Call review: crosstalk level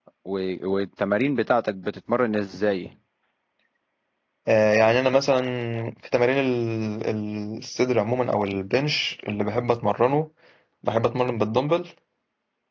none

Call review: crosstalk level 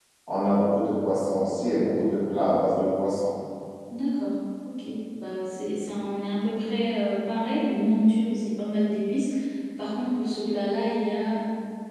none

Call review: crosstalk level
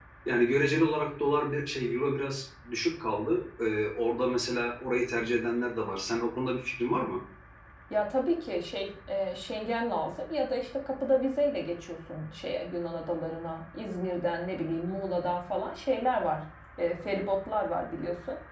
none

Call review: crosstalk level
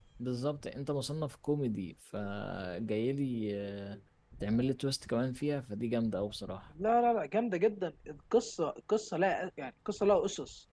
none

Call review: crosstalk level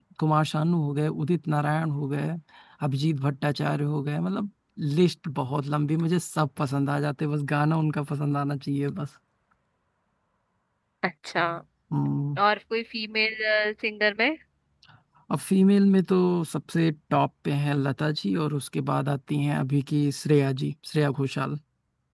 none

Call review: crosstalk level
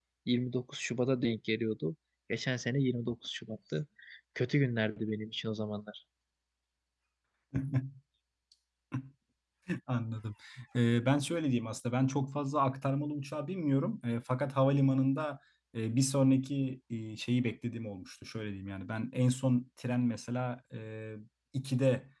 none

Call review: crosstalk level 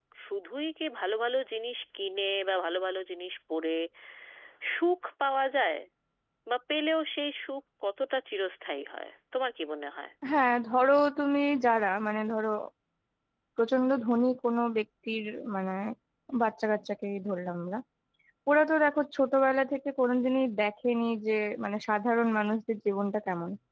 none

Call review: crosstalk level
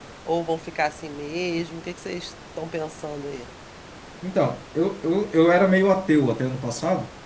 none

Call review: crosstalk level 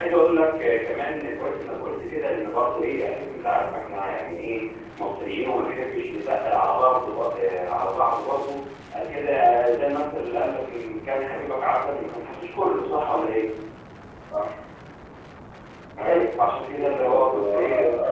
present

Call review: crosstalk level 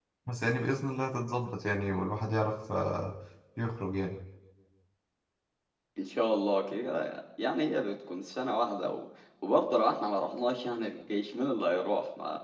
none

